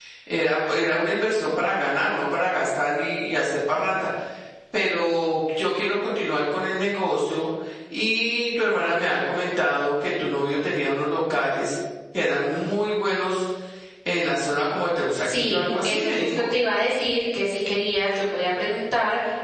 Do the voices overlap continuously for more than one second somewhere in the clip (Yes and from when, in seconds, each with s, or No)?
Yes, from 15.2 s